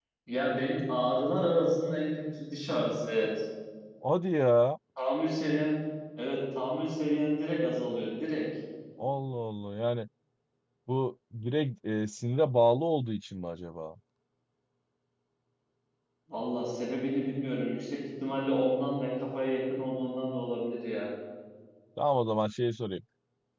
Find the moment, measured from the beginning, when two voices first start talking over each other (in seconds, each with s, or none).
none